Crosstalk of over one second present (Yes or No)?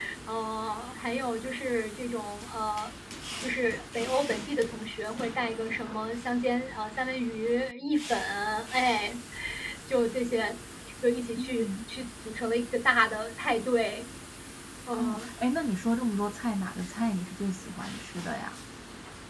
No